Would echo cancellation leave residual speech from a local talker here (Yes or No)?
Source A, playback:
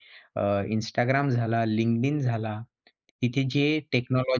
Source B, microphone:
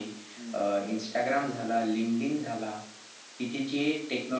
Yes